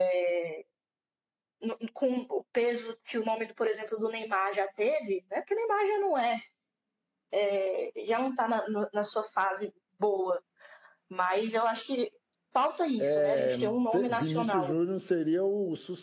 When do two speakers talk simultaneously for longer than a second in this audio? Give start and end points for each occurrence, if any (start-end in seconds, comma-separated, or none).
13.0-14.7